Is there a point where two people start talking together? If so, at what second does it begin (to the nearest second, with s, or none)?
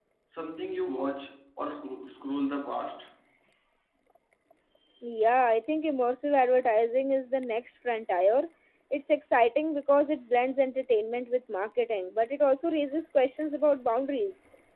none